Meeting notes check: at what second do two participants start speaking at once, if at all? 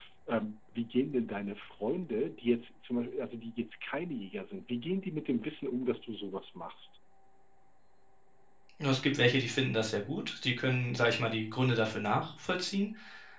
none

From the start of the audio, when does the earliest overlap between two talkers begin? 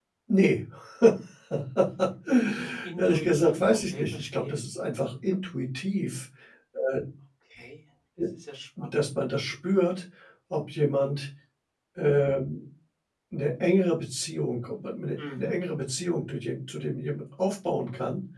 3.0 s

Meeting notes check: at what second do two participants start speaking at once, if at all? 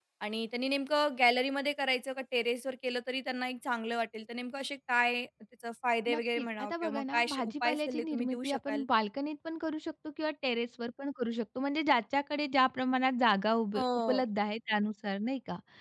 6.1 s

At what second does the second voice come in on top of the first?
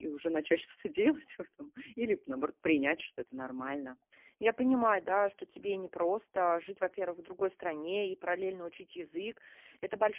none

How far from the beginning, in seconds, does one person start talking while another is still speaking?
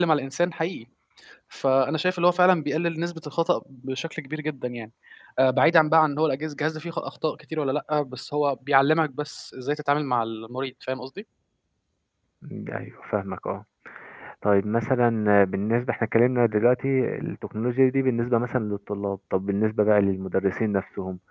none

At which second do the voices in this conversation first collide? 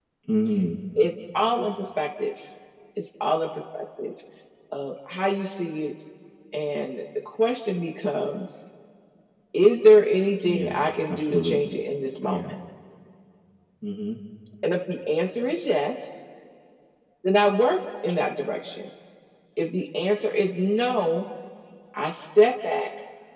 10.4 s

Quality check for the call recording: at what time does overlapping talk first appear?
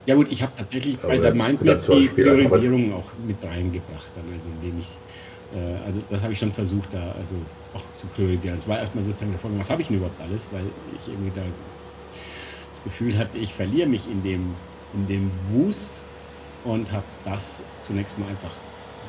1.1 s

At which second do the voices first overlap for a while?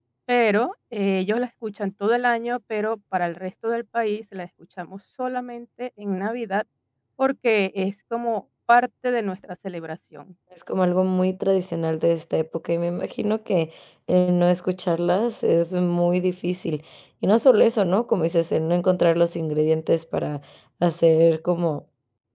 none

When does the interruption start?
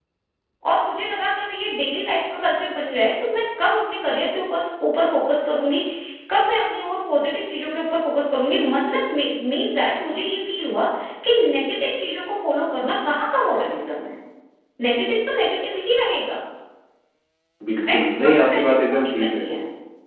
17.9 s

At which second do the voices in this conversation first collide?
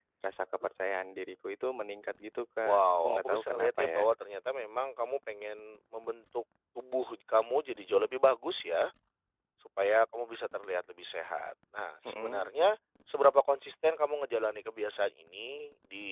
2.6 s

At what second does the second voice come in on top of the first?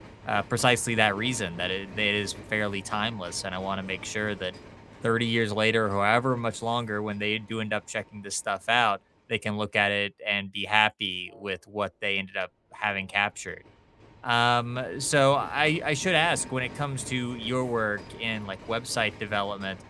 none

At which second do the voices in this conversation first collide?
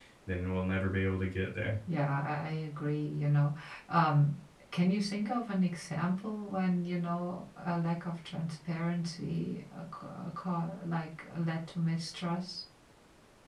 none

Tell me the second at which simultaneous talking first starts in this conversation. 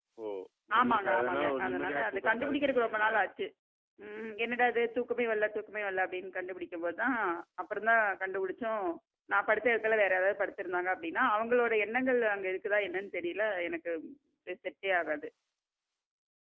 0.8 s

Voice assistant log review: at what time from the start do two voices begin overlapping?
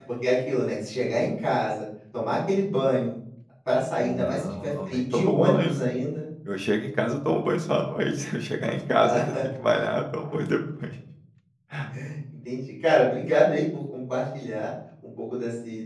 4.0 s

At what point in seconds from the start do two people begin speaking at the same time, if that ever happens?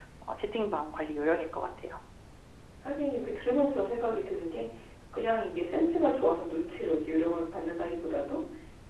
none

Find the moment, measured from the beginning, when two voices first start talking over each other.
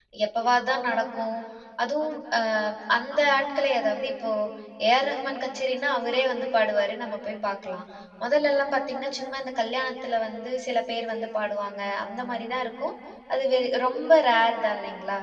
none

